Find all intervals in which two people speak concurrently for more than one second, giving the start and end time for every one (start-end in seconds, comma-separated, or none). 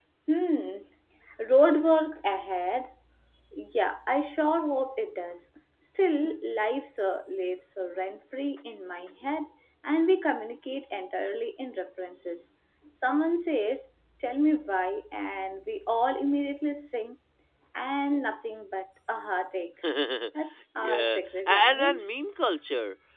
20.8-22.0